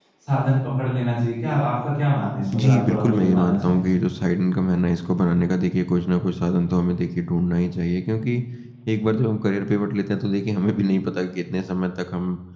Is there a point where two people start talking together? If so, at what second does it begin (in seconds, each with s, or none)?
2.5 s